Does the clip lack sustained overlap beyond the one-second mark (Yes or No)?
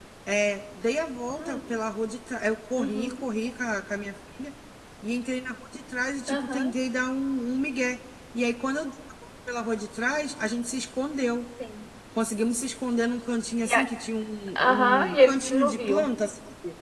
No